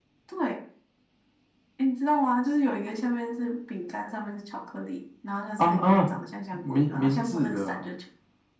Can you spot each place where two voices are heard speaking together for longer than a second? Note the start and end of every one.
6.5-7.9

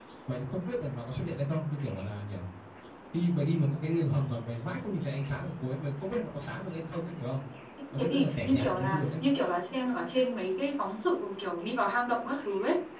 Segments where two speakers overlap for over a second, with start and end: 8.0-9.2

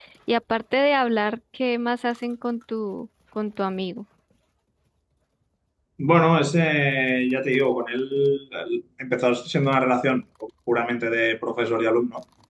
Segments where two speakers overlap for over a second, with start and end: none

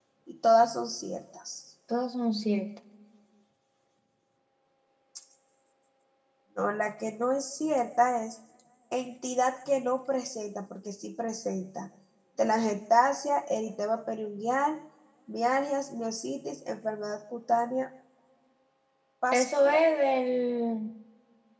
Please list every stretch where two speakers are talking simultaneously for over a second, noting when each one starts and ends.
none

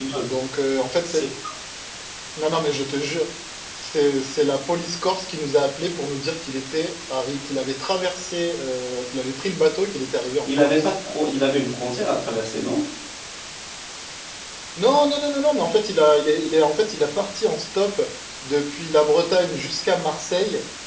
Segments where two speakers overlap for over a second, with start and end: none

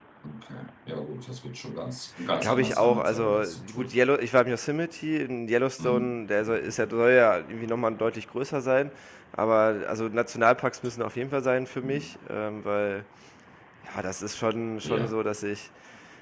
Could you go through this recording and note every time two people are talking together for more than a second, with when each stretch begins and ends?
2.4-3.9

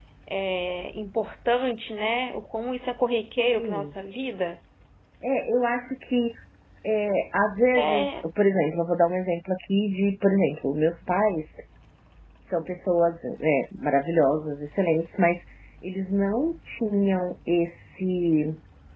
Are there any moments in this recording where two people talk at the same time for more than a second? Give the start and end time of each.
none

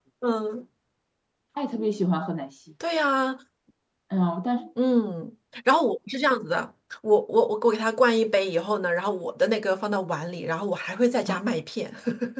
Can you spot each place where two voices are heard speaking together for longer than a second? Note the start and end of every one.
none

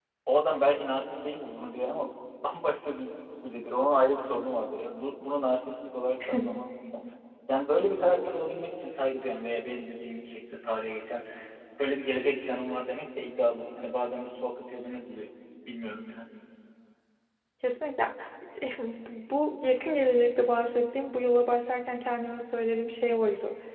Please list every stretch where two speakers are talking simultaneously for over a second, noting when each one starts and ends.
none

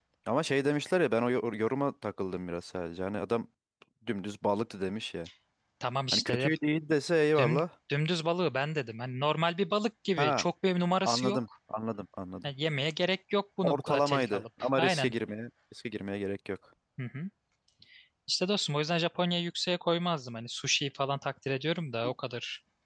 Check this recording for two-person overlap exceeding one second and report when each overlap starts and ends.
13.6-15.1

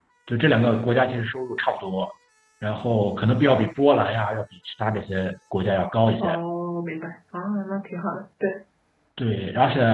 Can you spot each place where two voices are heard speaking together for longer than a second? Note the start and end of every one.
none

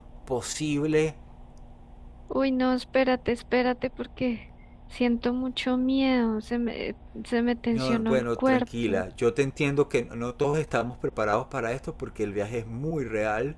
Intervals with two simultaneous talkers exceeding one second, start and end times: 7.7-9.0

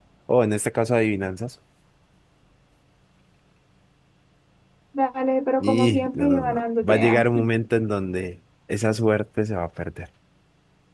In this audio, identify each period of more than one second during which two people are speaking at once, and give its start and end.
5.6-7.2

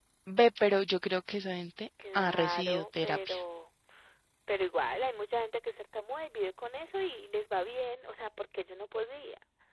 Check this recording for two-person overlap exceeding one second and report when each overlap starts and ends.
2.2-3.4

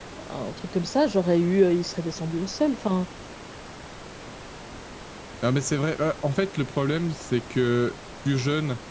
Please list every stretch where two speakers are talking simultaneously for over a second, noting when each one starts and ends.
none

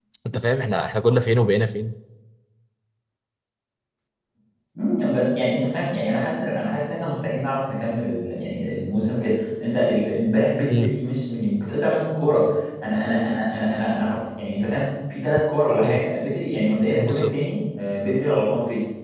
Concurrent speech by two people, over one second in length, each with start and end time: none

